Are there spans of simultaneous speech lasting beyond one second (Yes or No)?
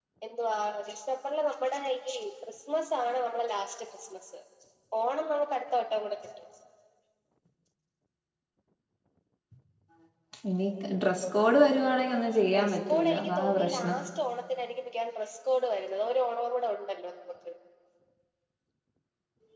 Yes